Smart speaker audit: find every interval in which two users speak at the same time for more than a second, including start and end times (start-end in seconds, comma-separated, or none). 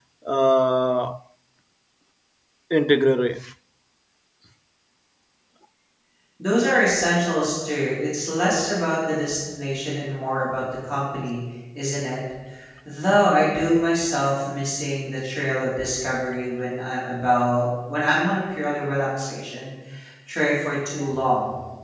none